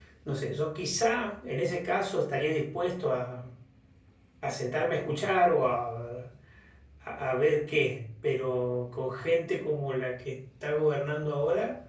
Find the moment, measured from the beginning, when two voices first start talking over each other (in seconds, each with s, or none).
none